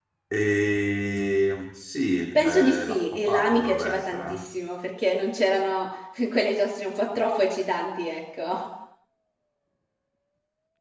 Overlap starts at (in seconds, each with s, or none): 2.4 s